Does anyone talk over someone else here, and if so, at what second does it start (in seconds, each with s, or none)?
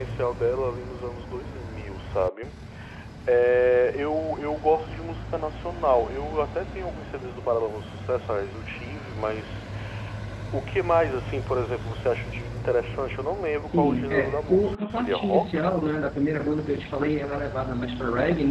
13.7 s